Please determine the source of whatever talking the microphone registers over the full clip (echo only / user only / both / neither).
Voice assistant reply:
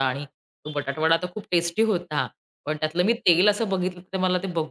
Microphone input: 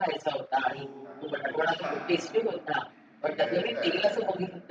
both